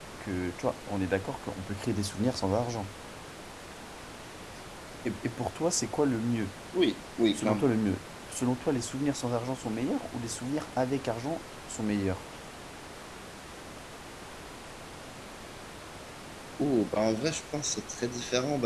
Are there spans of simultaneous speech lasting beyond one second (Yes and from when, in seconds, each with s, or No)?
No